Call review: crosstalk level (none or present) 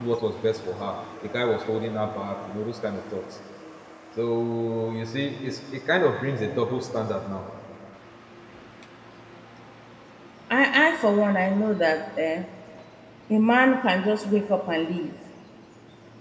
none